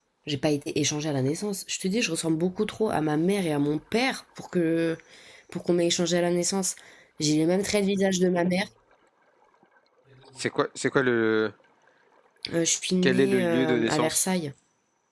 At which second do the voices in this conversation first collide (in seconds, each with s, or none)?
13.0 s